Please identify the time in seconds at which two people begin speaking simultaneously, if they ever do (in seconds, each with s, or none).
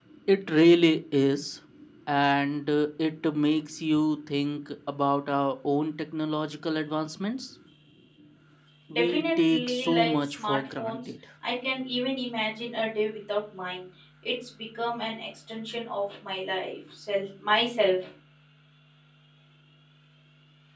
8.9 s